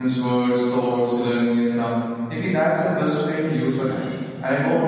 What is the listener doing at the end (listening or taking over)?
listening